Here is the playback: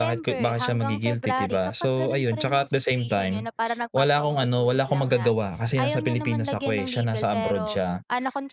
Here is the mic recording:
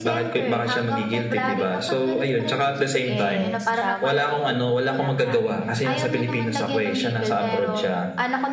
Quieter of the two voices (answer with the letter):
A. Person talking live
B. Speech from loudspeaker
A